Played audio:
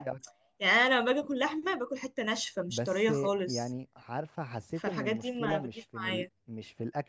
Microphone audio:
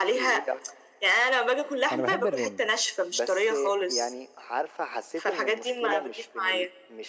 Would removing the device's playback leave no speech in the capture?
No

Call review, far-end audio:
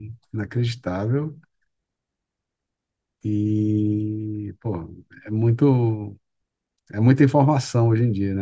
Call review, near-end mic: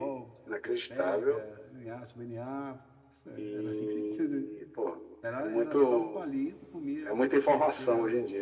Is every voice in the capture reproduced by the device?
No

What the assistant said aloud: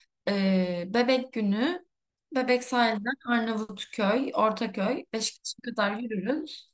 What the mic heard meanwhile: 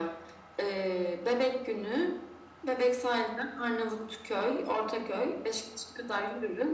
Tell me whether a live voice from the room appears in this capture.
No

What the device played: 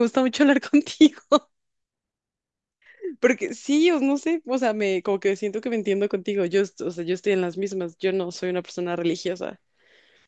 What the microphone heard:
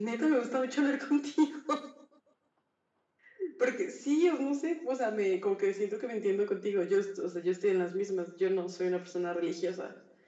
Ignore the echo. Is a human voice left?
No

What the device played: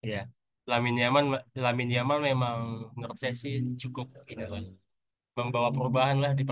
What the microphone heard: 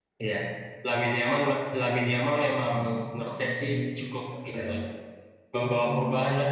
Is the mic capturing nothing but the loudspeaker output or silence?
Yes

